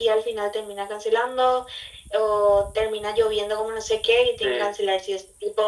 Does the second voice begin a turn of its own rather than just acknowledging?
No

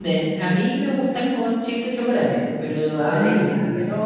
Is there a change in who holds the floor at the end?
No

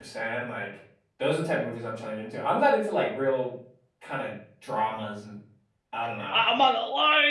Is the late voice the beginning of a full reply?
Yes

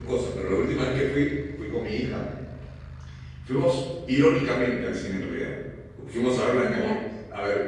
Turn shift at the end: No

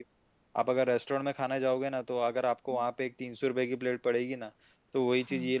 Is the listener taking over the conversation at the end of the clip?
No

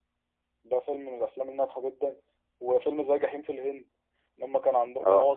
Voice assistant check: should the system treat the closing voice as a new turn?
Yes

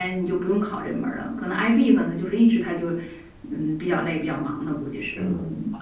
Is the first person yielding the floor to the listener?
Yes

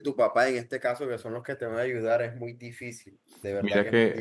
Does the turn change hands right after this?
Yes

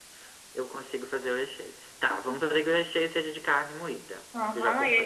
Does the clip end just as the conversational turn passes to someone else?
Yes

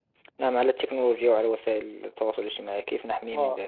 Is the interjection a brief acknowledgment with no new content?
No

